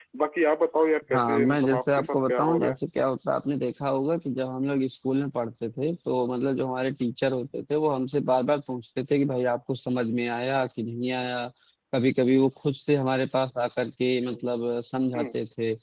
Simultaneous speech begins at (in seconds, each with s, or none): 1.1 s